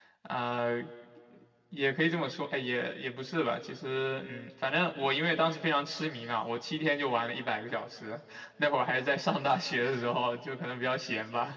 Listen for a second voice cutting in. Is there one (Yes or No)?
No